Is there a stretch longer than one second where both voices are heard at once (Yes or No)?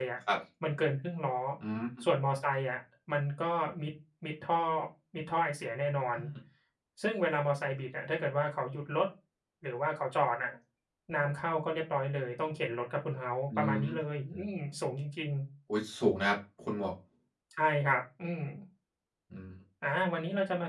No